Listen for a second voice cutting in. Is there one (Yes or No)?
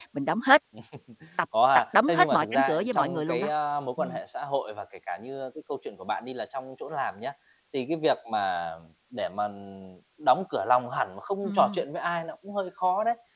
Yes